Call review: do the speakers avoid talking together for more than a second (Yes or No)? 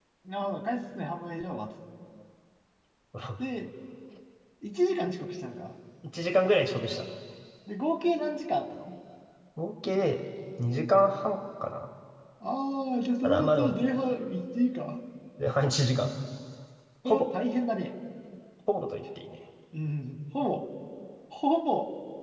Yes